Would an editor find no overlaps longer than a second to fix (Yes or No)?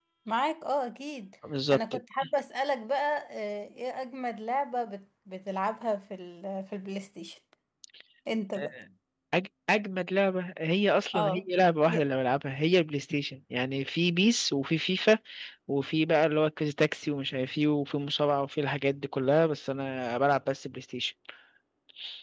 Yes